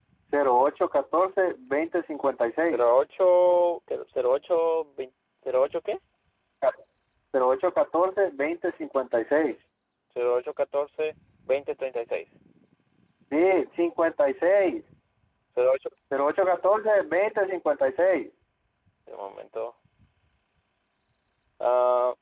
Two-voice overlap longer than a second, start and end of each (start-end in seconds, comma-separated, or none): none